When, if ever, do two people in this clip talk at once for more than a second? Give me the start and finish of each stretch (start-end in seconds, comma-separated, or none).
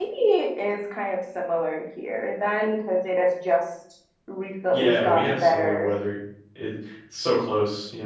4.7-5.9